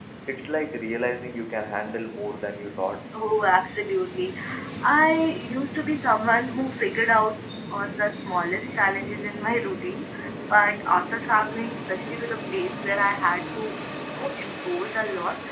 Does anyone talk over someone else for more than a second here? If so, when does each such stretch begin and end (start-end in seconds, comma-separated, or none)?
none